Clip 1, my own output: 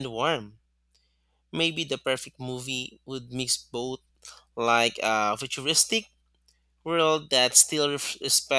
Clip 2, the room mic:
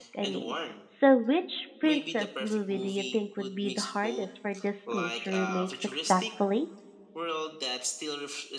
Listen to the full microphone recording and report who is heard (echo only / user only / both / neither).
both